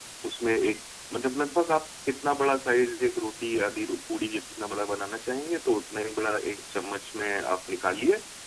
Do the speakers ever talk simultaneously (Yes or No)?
No